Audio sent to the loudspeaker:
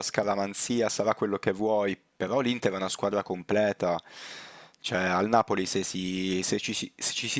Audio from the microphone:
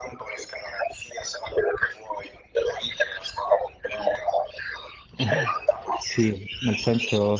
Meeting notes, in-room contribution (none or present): present